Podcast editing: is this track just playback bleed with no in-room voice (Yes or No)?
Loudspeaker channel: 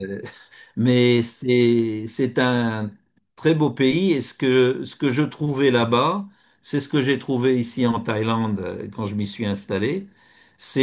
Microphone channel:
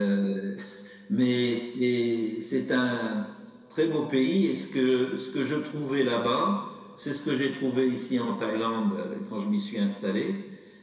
Yes